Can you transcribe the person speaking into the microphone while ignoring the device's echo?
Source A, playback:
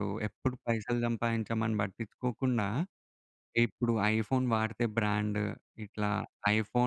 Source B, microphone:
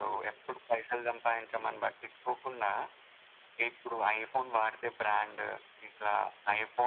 none

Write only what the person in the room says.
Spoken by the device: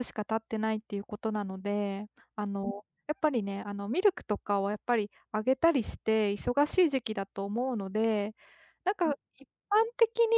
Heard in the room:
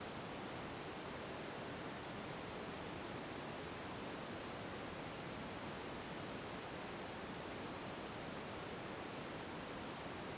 none

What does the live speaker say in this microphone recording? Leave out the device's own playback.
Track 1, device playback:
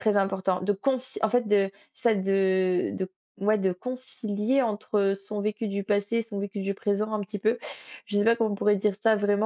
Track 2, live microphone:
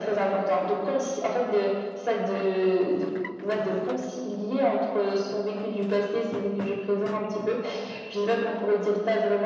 none

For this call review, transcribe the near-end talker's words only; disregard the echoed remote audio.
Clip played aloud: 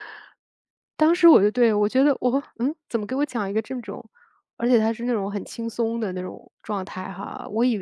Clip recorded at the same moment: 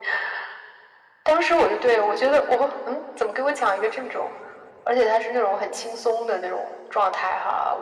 none

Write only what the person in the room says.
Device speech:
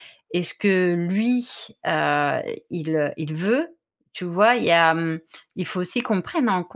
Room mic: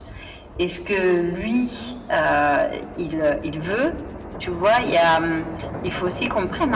none

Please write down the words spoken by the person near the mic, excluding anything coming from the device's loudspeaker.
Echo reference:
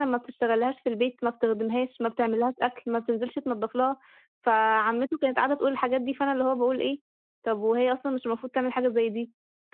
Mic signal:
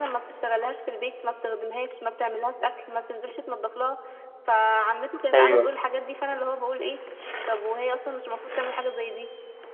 أيوه.

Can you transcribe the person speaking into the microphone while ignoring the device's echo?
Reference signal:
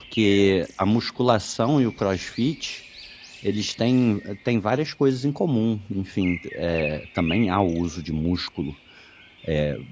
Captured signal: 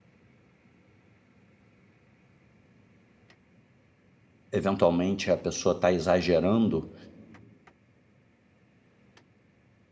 eventualmente a pessoa está exagerando,

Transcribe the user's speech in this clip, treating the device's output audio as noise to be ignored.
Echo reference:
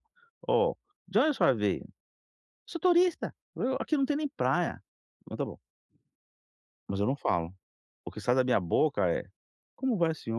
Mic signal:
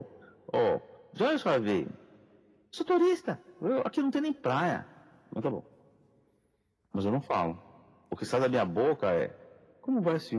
none

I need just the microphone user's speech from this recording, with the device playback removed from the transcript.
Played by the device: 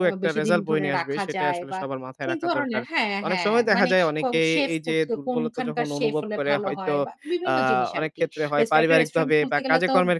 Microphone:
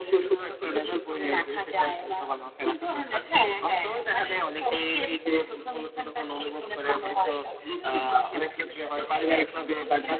none

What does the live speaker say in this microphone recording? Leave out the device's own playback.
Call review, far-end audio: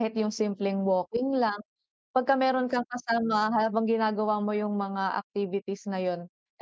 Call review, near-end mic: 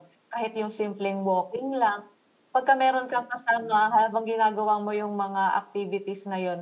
none

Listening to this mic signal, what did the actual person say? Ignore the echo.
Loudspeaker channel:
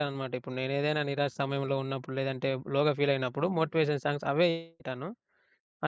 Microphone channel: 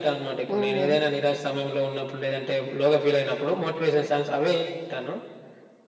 హ్మ్.

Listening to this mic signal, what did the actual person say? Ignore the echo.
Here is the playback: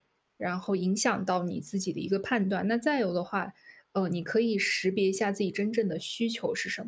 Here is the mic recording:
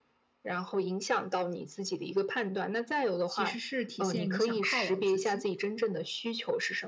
其实是体现你想犒劳自己。

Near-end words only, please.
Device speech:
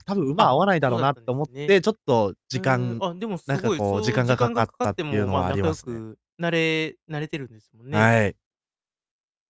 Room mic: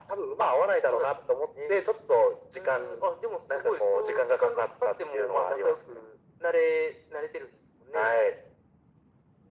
none

